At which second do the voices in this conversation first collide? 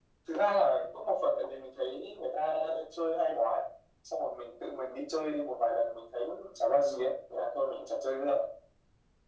none

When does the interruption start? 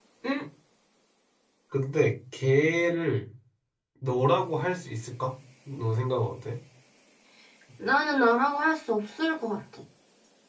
none

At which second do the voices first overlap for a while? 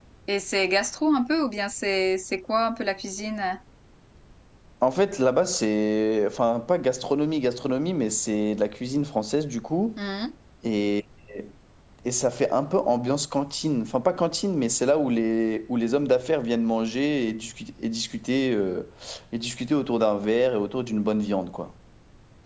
none

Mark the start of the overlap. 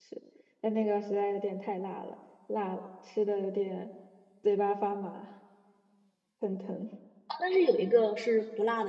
none

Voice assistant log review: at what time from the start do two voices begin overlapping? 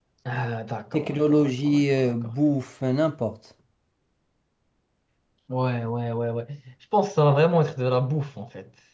0.9 s

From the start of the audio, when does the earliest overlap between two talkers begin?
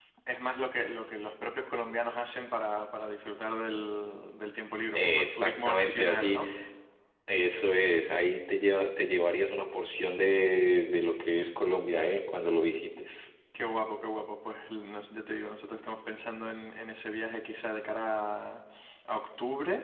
5.0 s

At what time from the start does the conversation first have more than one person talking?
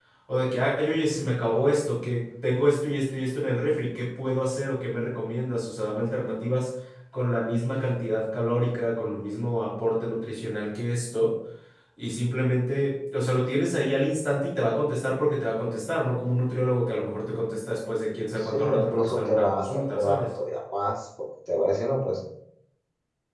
18.4 s

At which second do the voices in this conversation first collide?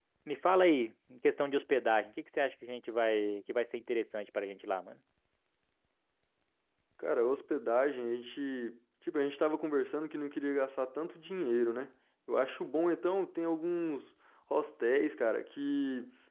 none

